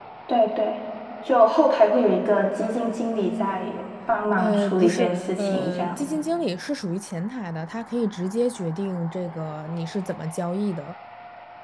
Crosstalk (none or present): present